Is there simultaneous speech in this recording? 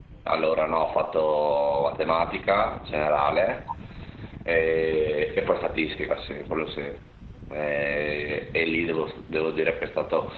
No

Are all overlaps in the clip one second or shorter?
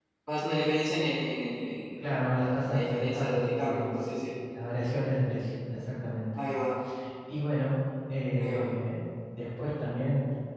No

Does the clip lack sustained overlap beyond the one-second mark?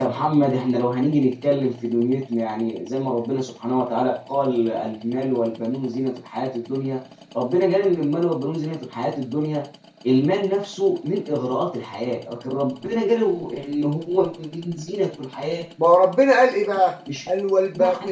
Yes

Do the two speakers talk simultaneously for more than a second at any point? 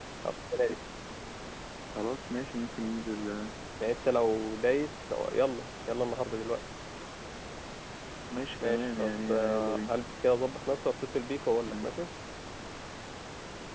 Yes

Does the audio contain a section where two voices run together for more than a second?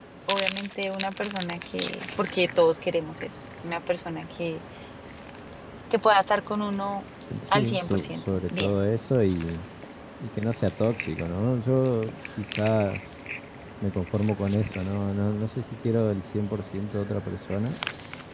Yes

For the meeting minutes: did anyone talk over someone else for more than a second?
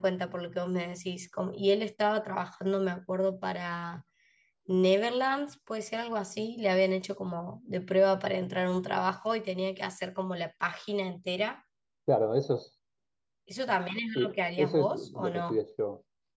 Yes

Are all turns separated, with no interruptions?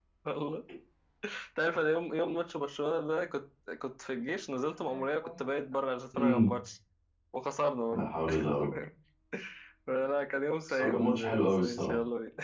No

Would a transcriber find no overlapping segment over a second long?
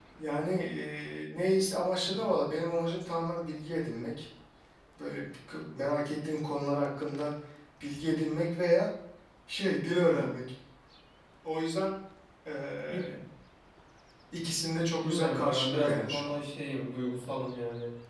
No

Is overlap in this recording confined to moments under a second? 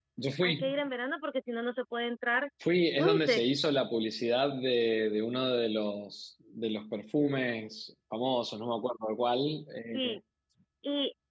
Yes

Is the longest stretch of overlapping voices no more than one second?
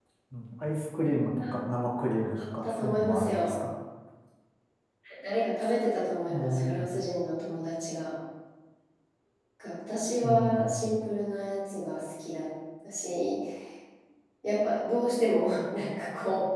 No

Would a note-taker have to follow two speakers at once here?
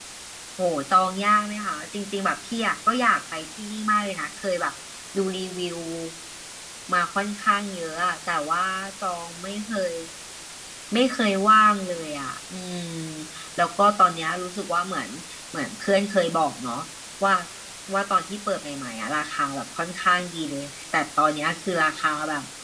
No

